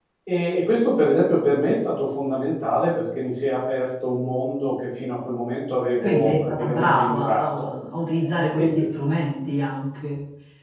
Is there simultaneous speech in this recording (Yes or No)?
Yes